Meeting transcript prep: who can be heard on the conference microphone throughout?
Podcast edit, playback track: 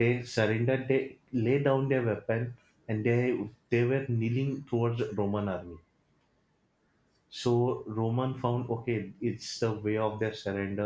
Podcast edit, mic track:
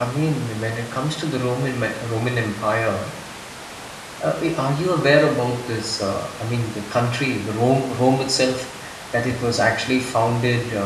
user only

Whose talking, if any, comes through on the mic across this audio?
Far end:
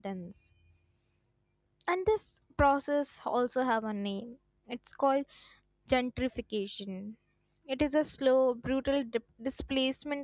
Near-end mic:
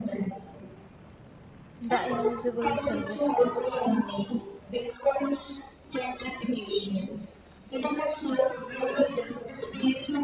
both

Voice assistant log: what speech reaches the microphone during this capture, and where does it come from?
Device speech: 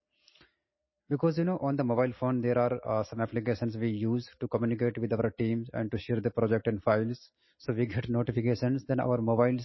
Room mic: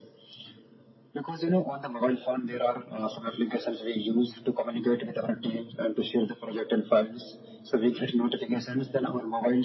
echo only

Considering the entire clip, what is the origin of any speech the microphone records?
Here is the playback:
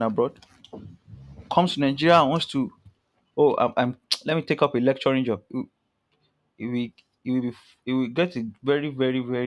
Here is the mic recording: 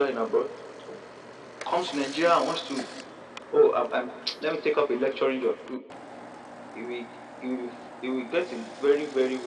echo only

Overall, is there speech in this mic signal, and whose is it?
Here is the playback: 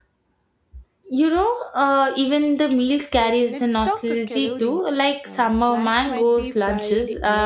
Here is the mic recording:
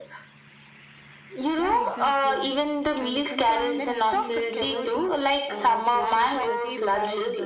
both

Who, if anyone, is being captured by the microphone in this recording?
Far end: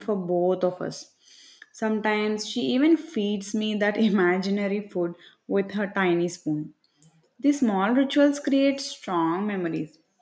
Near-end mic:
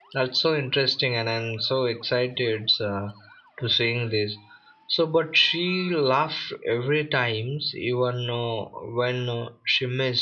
user only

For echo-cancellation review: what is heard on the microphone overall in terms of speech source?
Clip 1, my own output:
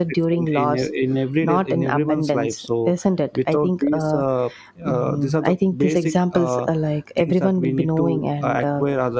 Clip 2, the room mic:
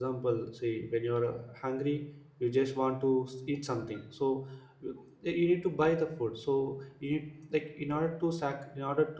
user only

